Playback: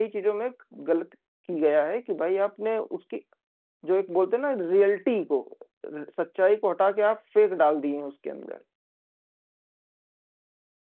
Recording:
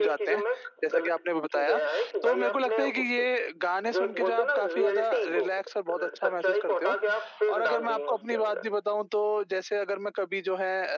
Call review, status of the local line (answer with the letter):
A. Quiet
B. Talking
B